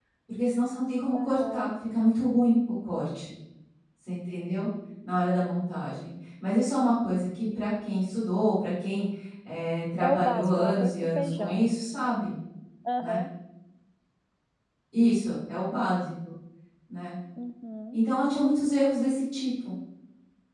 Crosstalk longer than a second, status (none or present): present